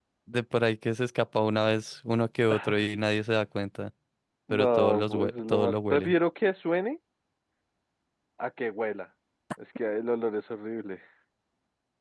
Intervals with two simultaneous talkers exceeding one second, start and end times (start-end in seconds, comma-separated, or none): 4.5-6.1